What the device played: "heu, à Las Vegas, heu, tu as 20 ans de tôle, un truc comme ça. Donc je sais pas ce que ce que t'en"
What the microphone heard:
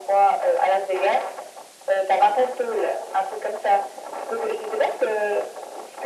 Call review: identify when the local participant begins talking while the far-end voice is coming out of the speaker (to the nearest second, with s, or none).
none